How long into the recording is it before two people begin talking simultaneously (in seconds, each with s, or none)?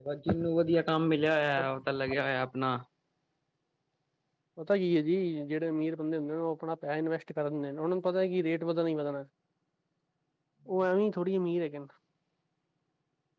none